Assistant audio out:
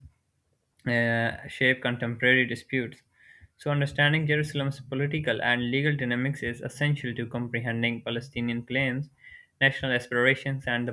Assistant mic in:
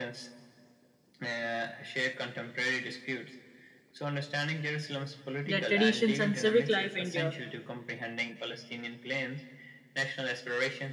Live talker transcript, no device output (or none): their traditions and civic life endure.